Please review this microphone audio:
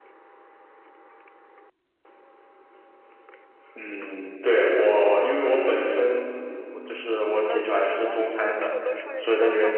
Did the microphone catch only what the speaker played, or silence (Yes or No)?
No